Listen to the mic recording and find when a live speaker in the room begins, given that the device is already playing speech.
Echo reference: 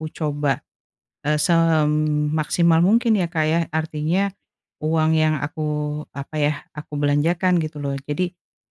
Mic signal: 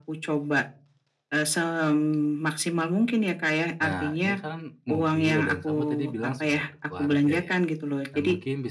4 s

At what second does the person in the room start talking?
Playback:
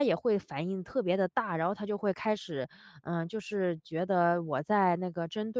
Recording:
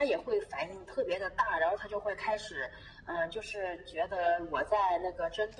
none

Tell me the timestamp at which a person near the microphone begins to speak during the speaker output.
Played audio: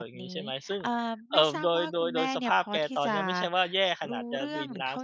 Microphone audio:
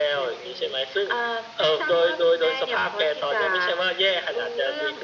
none

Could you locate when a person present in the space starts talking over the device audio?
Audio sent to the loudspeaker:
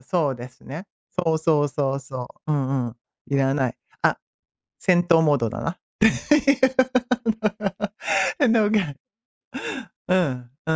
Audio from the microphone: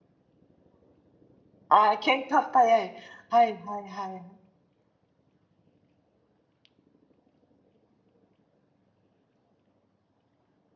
2 s

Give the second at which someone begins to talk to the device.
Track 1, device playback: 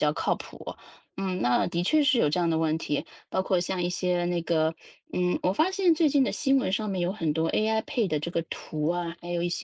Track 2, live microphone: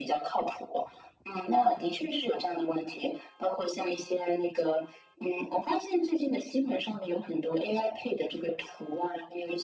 none

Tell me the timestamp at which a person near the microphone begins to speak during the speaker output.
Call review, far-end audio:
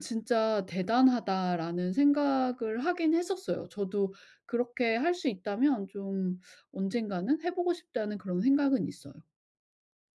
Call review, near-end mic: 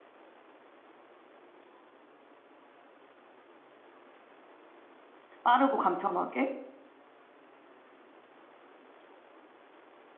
5 s

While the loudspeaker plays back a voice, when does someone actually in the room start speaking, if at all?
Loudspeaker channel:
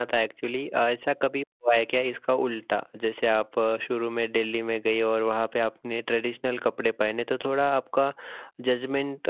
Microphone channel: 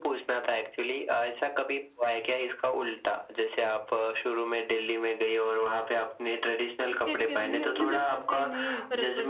7 s

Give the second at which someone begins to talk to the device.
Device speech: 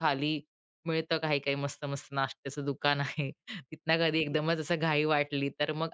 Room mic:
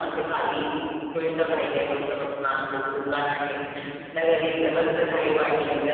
none

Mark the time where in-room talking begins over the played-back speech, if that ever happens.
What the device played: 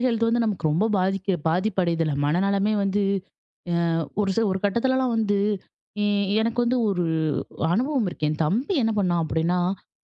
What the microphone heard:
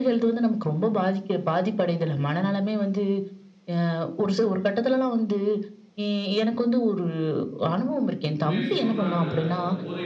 8 s

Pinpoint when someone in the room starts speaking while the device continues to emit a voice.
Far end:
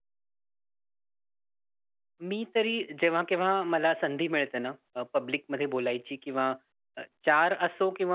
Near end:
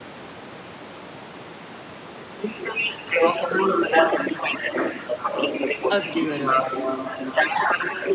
6 s

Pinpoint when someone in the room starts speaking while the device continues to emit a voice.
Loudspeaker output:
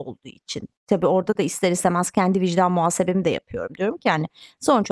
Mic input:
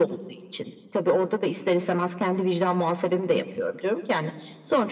none

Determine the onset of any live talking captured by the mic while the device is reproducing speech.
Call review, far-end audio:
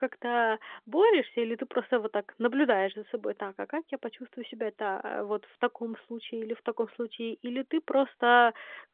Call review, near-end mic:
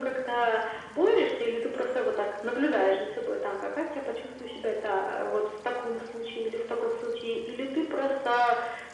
none

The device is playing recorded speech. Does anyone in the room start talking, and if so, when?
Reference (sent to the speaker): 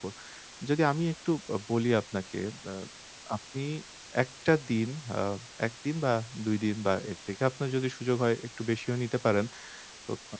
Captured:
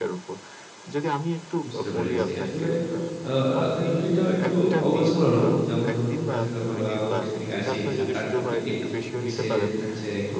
2 s

